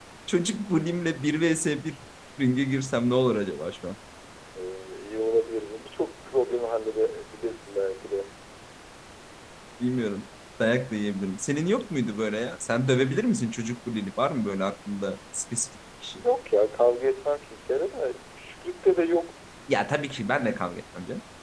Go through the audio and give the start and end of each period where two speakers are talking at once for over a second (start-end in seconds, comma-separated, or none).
none